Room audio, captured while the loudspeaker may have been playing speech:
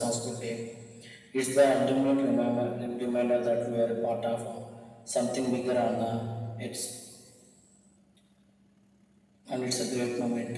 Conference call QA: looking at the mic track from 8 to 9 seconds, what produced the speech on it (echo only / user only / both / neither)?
neither